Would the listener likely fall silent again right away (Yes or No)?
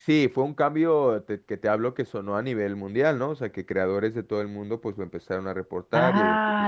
No